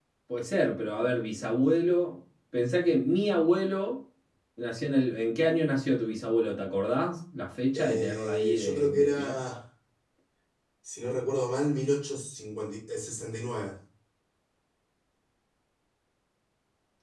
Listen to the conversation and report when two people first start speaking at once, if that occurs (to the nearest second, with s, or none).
8 s